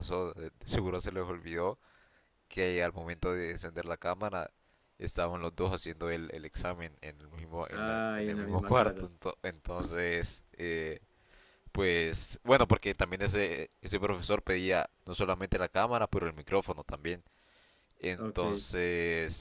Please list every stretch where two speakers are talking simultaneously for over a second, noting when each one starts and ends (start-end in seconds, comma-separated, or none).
7.7-9.1